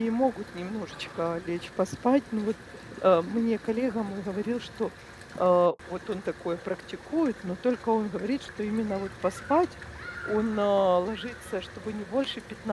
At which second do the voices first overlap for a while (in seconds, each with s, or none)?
none